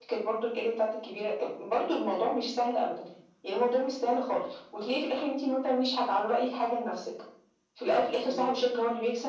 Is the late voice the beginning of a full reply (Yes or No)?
No